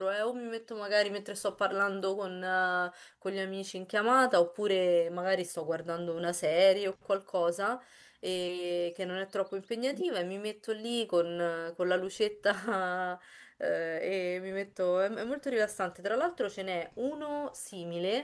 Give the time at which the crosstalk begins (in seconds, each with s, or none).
none